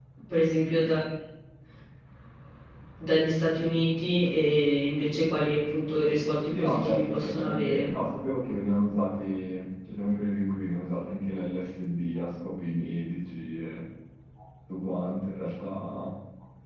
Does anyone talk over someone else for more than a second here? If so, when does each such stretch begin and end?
6.5-7.9

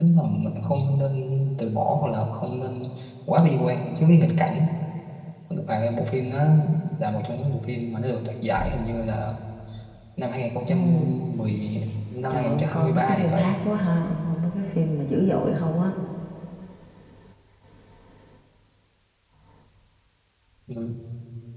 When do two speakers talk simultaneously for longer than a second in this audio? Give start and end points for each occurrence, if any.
12.3-13.5

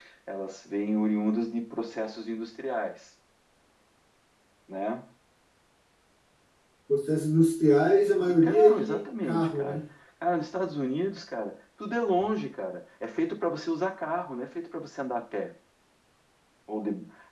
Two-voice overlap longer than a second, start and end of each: 8.4-9.8

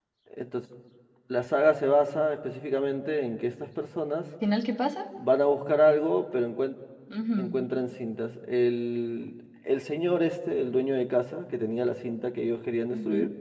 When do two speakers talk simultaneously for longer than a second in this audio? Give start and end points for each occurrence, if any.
none

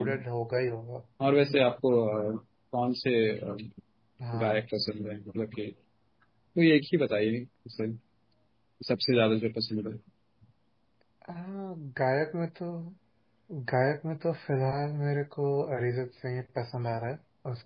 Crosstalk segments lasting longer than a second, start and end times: none

